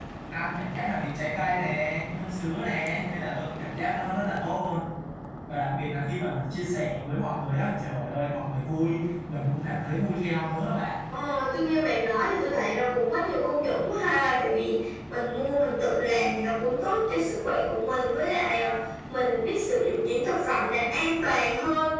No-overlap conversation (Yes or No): Yes